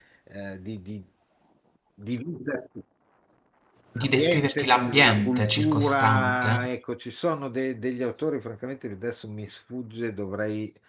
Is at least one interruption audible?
Yes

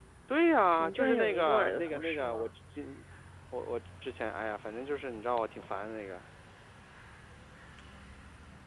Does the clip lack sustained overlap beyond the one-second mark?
No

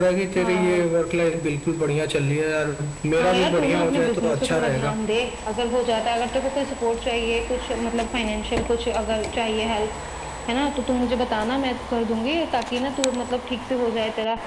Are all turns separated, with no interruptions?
No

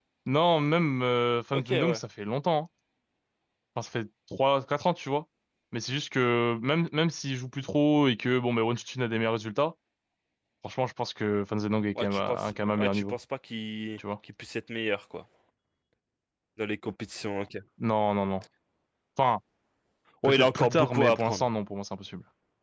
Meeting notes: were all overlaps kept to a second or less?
No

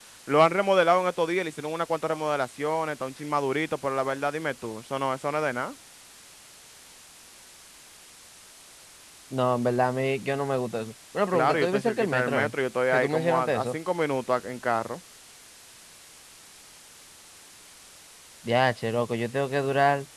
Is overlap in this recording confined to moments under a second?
No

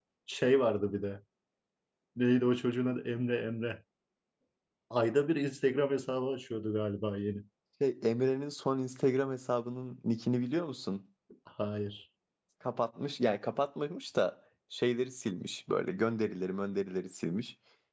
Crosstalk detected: No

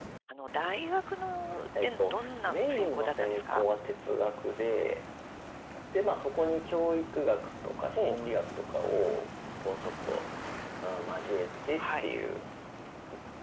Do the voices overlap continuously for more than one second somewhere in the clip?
Yes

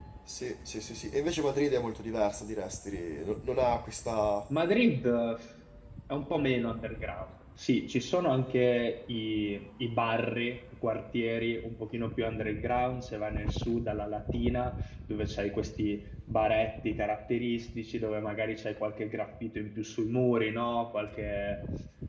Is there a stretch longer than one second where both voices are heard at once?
No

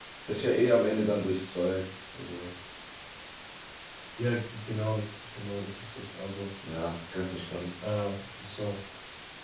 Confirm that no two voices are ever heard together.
Yes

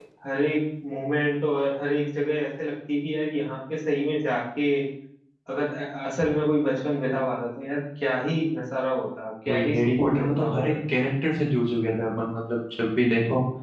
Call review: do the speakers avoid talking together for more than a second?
No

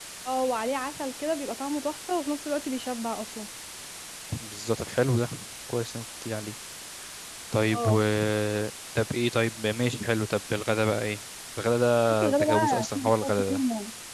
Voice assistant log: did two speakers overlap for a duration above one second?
Yes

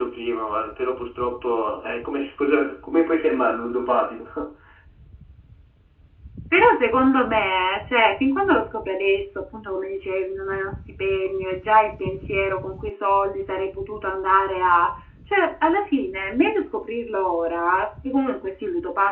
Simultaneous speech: No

